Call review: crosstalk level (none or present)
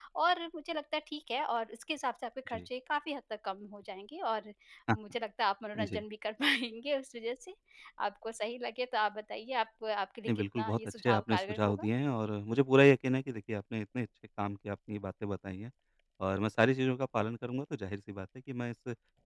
present